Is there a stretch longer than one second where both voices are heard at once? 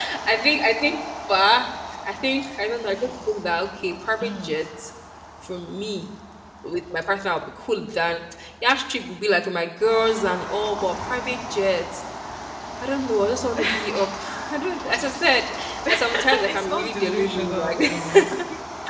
Yes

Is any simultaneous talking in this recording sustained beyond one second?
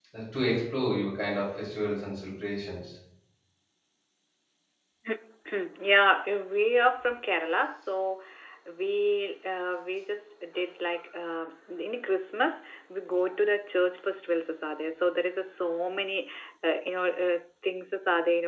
No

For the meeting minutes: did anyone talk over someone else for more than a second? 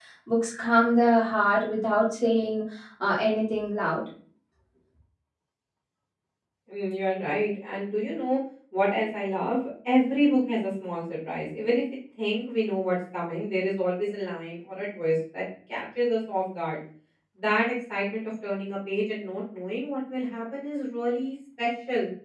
No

